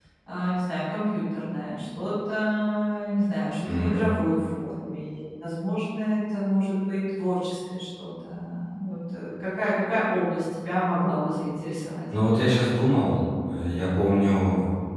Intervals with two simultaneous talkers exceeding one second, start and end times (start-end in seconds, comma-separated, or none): none